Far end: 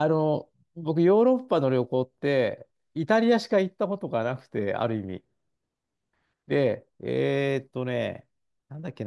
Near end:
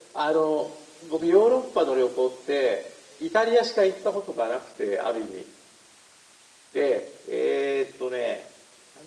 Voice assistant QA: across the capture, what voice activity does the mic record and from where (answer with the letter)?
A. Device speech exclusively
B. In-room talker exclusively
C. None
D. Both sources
A